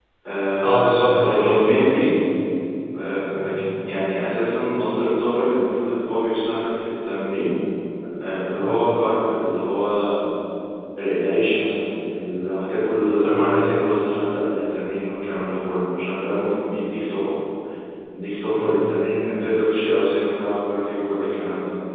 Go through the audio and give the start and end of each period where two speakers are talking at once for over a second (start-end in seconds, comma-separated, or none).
0.6-2.2